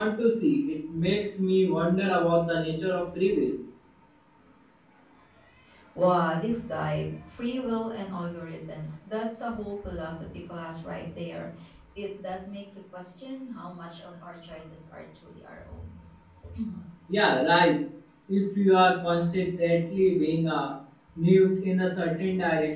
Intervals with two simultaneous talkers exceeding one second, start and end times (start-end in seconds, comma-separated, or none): none